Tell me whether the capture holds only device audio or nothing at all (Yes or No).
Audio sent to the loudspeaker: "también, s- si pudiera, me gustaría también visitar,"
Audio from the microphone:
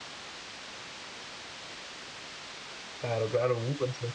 No